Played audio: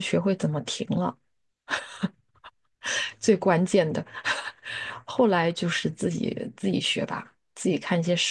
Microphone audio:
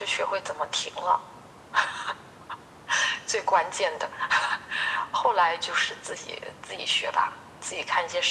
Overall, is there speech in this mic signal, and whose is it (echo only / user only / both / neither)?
echo only